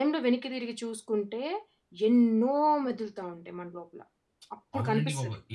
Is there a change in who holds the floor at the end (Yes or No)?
Yes